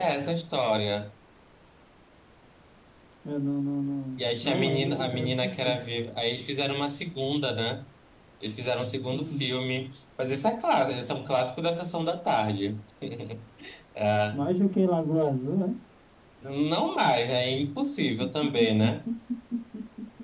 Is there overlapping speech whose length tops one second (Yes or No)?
Yes